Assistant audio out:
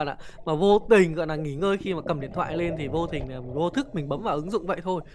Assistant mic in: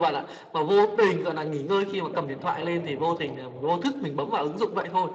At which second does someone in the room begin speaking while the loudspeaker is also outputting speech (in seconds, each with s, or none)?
none